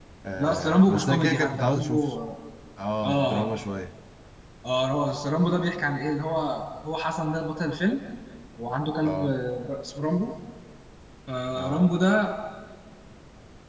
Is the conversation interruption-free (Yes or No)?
No